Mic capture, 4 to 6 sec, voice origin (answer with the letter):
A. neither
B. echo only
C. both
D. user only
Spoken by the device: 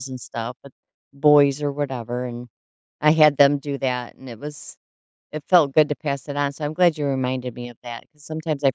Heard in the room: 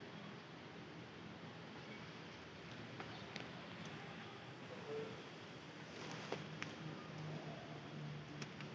A